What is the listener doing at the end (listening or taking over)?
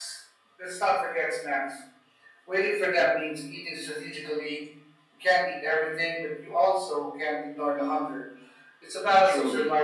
taking over